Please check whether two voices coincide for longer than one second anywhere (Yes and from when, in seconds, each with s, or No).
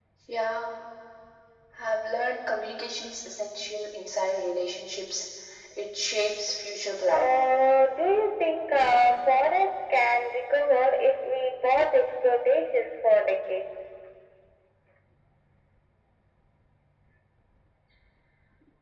No